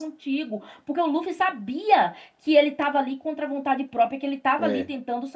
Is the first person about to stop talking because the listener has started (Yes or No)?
No